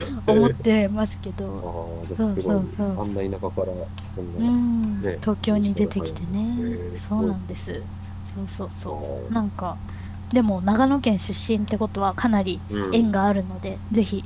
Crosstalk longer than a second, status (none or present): present